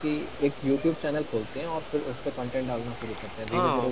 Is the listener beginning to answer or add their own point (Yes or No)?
Yes